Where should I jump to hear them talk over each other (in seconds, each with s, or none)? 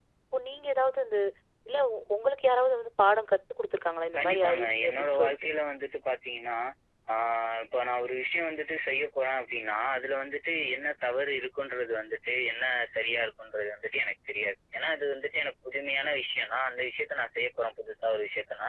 4.2 s